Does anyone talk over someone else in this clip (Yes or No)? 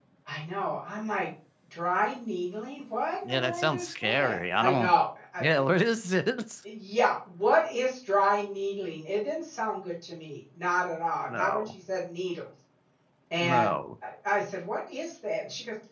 Yes